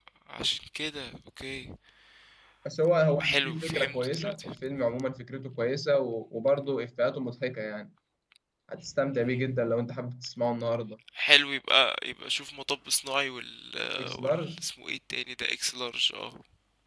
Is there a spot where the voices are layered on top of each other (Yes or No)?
Yes